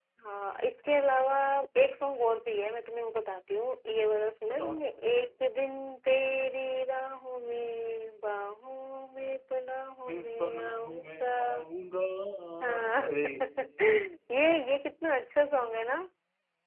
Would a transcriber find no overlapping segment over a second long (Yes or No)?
No